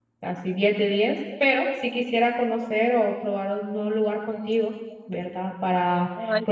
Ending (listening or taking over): listening